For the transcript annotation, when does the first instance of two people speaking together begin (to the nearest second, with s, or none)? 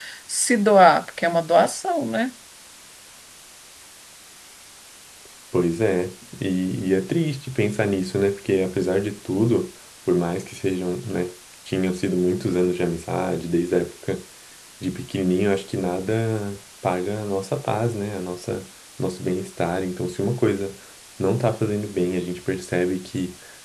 none